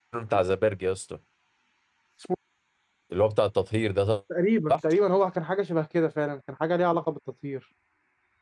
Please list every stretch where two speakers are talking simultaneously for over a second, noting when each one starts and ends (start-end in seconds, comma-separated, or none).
none